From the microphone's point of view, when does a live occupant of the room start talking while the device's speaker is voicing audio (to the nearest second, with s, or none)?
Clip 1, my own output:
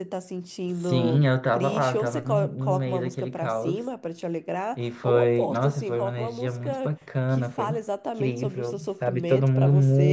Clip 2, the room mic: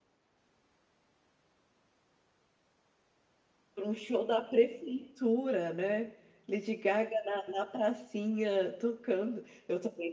4 s